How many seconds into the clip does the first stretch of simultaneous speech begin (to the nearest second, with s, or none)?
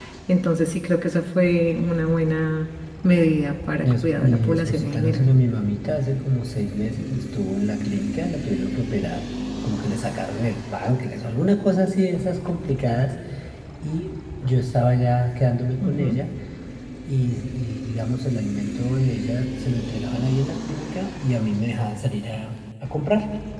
4 s